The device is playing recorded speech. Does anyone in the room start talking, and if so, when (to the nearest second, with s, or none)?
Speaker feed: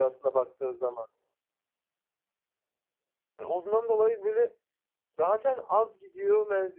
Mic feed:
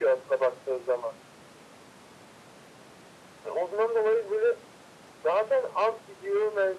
none